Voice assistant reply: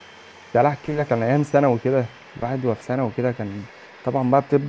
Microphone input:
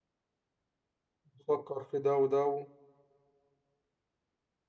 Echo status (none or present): none